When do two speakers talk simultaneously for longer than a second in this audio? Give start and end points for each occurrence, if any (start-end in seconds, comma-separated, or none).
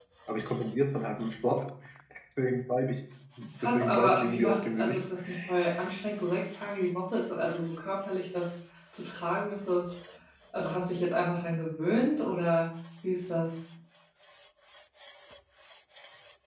3.6-5.0